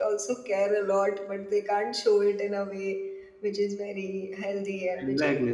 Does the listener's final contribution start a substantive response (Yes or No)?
Yes